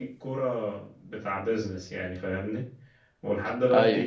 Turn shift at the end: No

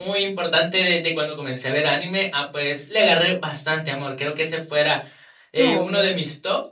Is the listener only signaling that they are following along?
Yes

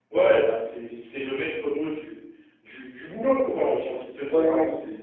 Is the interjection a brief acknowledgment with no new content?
No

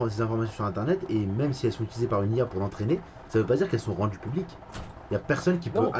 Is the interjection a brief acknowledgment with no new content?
Yes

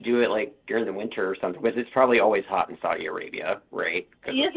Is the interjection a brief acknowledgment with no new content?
No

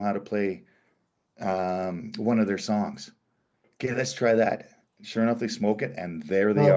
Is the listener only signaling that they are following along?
No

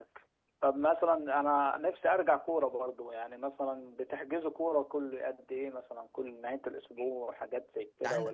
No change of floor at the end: No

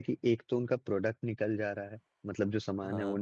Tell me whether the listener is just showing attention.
Yes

